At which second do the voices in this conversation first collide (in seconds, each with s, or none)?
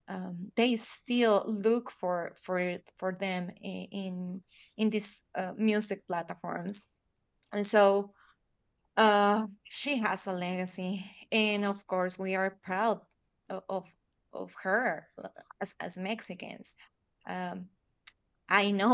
none